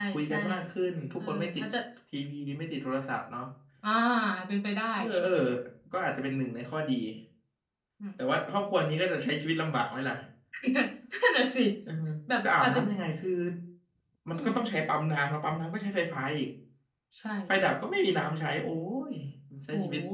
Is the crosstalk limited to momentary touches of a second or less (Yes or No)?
Yes